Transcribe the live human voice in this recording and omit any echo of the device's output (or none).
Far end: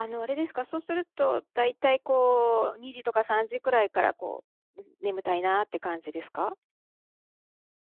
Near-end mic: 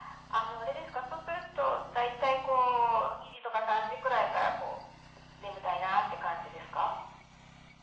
none